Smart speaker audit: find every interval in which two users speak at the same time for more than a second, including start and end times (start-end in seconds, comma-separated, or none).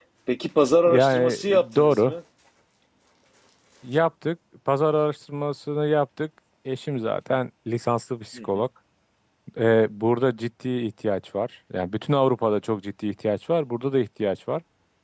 0.9-2.1